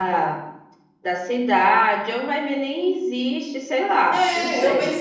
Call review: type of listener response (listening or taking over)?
taking over